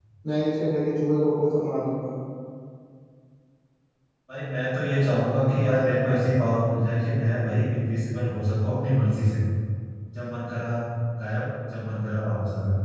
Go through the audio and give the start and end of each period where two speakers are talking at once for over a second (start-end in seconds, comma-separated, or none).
none